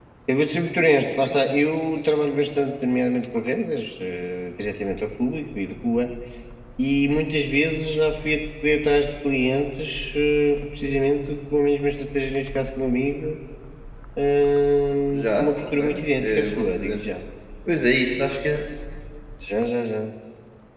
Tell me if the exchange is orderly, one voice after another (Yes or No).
No